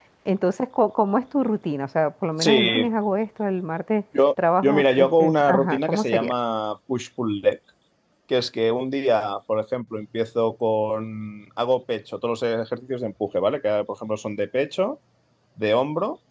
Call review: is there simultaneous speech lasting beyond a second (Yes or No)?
Yes